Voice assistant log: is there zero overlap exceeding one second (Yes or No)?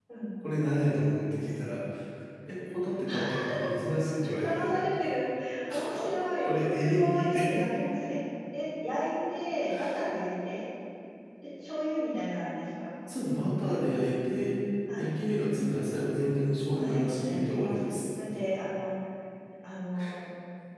No